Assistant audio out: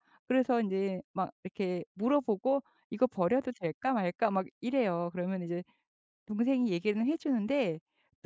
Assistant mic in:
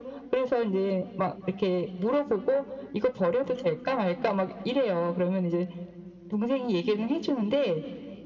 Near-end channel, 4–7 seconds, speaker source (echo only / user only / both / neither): echo only